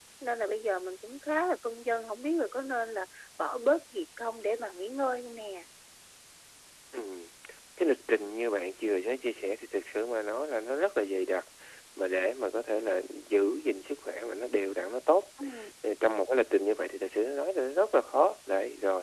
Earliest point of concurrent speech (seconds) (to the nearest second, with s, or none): none